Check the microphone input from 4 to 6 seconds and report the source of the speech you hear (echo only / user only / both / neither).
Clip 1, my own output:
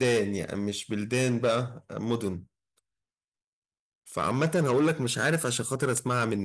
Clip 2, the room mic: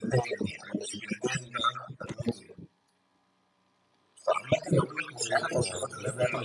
both